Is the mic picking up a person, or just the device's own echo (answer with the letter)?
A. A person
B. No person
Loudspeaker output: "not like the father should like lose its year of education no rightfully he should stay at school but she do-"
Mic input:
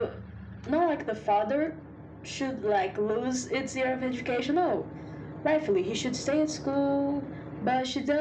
B